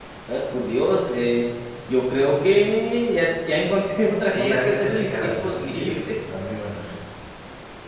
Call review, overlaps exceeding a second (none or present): present